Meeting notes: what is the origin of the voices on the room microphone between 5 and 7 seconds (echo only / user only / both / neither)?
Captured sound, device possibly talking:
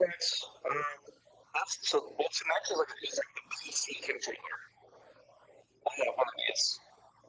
echo only